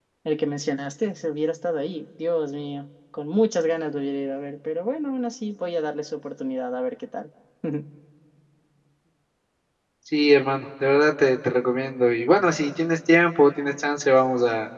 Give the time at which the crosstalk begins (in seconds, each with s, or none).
none